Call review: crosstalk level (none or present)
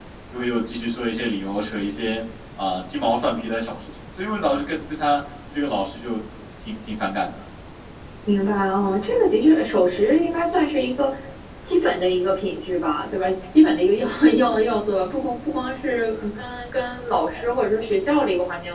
none